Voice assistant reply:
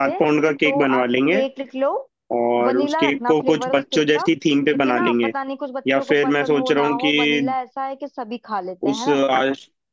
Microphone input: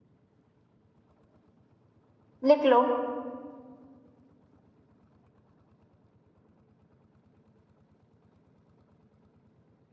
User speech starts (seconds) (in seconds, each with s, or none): 2.5 s